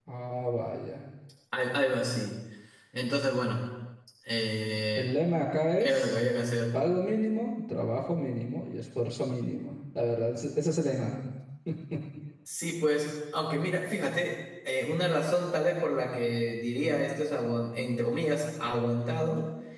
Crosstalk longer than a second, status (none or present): none